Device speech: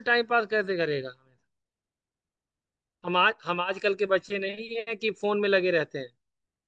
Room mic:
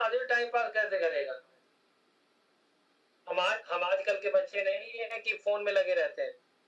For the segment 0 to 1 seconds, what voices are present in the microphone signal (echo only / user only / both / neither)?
echo only